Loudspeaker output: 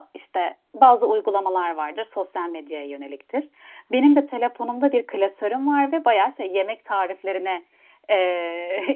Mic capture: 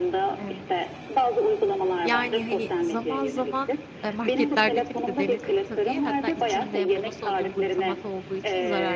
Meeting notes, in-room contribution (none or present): present